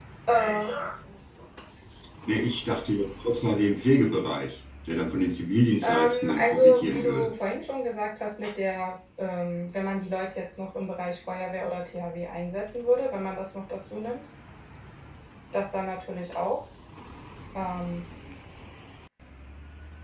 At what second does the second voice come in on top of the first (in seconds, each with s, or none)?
5.8 s